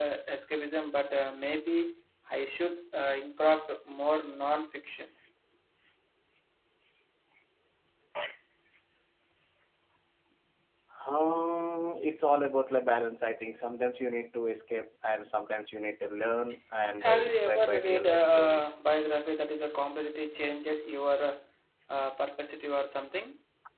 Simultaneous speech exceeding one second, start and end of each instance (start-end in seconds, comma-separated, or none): 17.0-18.8